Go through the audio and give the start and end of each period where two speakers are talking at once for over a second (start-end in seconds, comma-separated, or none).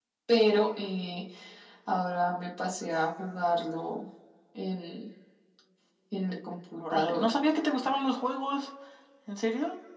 none